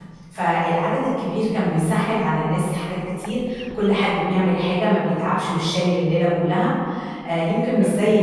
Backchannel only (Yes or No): Yes